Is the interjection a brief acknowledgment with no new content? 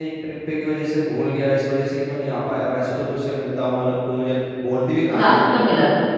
No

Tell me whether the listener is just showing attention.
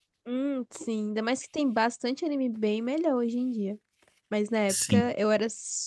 Yes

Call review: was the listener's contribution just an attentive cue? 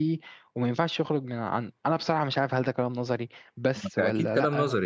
No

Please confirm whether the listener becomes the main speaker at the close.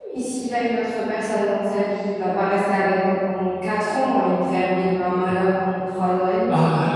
Yes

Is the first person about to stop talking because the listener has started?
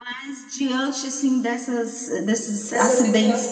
No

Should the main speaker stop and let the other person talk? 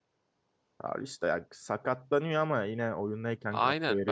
Yes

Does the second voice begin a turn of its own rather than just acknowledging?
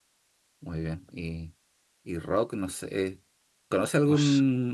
No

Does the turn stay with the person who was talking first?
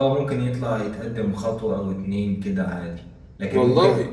Yes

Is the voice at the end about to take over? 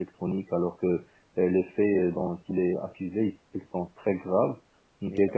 No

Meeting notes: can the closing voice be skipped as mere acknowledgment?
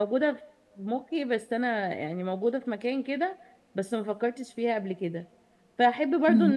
Yes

